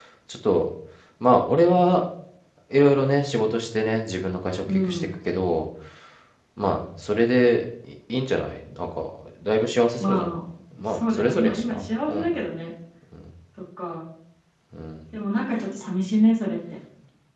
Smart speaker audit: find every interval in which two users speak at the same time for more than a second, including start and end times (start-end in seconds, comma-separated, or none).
10.8-12.3